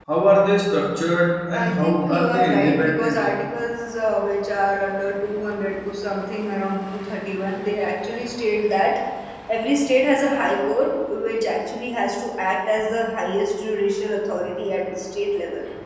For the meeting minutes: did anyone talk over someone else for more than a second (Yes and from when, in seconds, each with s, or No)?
Yes, from 1.5 s